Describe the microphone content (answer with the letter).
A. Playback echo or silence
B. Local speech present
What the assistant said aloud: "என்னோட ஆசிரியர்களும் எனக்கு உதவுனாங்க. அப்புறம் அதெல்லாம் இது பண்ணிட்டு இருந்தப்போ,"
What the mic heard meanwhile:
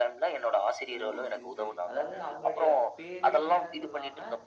B